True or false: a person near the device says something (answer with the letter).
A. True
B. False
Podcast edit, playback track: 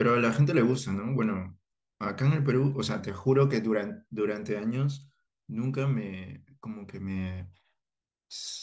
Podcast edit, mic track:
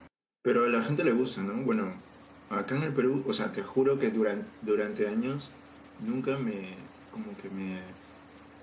B